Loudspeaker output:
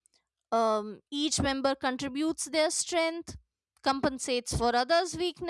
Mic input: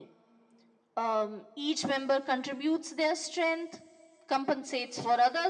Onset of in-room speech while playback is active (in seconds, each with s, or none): none